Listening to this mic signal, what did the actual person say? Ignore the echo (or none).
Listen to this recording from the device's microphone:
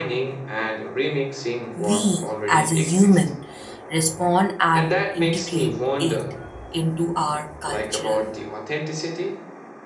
we as a human respond and integrate it into our cultural